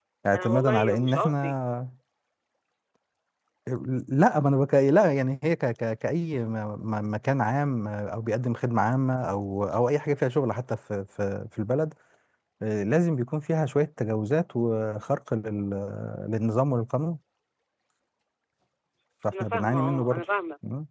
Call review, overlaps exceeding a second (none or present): present